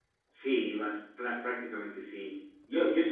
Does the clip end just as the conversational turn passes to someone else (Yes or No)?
No